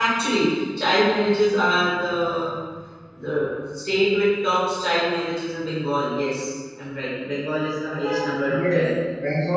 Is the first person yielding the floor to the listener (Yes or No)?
Yes